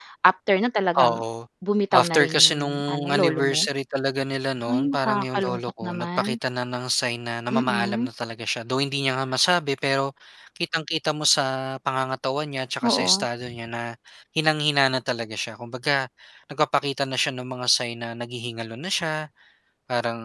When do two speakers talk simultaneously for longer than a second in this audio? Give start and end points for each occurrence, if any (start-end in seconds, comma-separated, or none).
1.9-3.6, 4.7-6.4